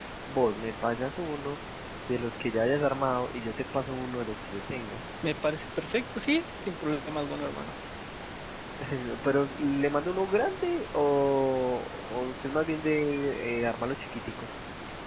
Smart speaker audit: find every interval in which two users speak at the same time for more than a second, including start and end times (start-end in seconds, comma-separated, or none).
none